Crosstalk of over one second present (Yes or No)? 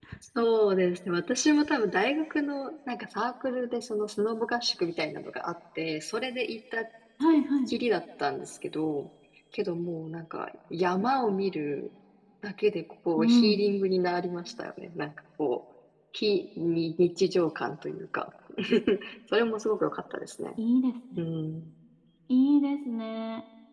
No